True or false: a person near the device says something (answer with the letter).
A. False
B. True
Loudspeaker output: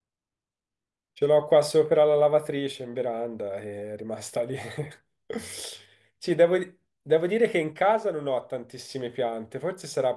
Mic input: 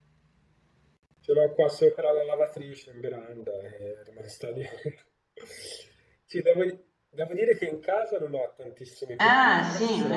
B